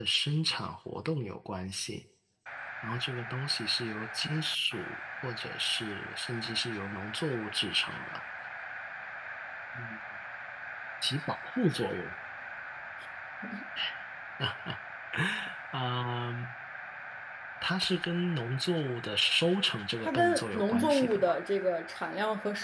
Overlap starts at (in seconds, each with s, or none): 20.0 s